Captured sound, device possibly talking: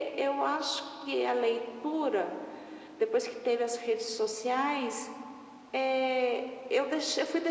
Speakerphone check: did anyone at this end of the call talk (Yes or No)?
No